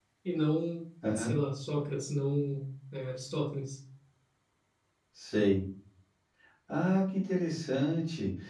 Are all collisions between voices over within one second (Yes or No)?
Yes